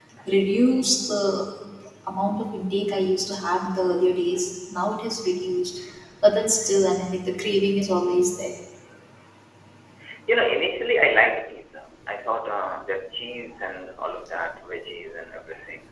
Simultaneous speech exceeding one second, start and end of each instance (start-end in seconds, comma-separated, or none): none